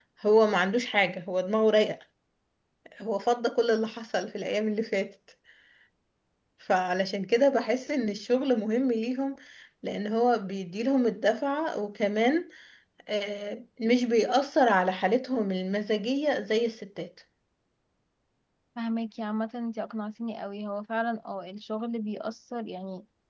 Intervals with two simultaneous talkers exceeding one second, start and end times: none

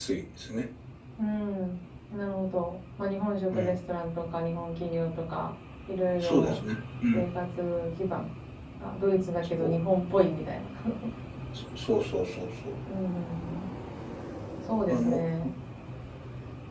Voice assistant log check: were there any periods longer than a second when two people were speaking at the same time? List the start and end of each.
none

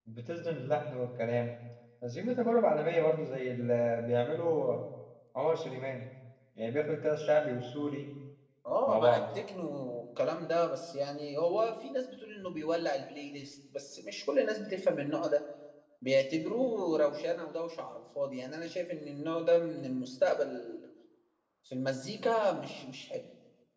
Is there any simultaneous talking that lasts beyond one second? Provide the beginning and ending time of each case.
none

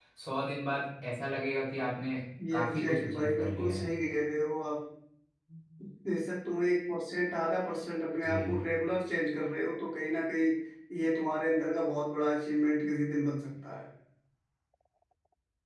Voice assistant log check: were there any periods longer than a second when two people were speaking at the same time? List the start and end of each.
2.5-3.9

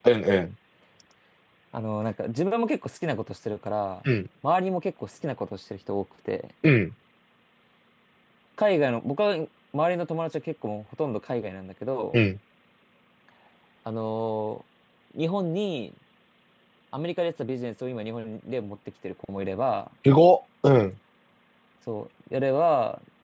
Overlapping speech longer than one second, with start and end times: none

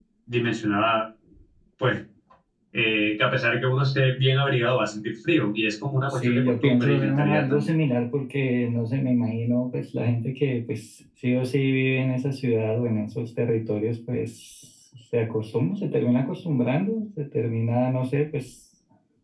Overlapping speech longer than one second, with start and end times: 6.1-7.7

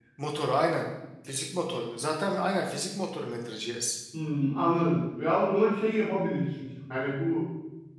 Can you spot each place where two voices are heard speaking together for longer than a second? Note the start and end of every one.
none

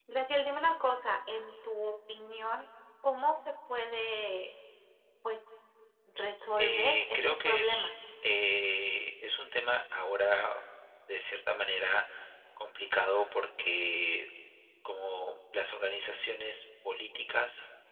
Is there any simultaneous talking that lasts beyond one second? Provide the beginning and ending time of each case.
6.6-7.9

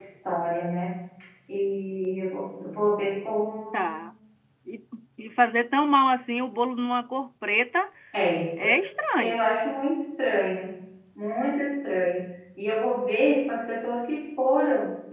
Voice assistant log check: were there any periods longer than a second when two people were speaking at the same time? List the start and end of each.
none

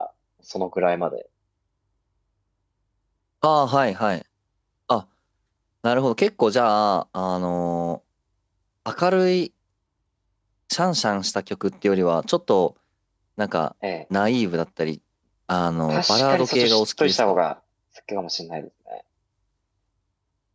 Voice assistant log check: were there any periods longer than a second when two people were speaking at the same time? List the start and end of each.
15.9-17.4

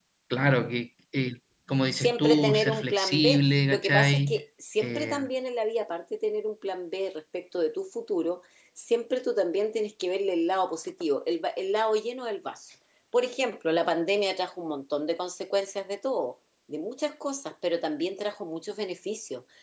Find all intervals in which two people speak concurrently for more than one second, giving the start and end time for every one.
1.9-4.3

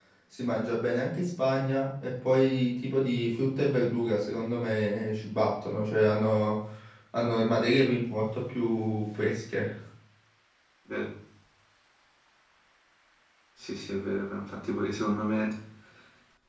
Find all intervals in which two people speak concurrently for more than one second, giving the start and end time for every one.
none

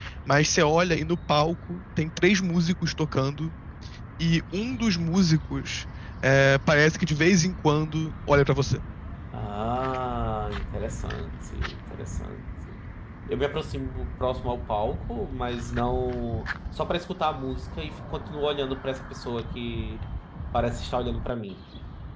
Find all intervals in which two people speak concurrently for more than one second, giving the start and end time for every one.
none

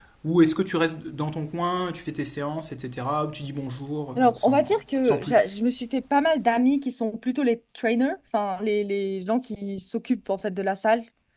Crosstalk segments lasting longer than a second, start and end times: 4.2-5.5

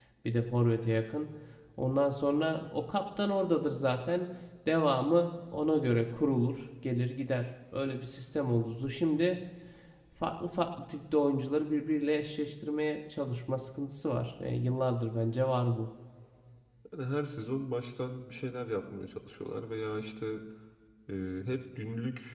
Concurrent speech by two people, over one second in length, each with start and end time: none

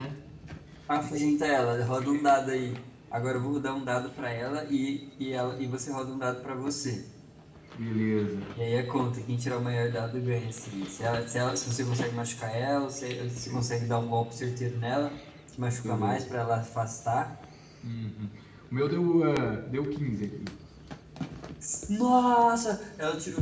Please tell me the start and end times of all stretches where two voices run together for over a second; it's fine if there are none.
none

